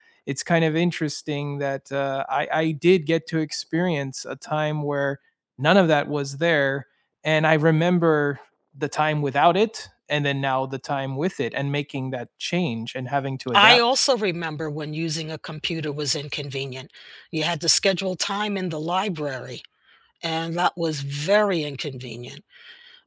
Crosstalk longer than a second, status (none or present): none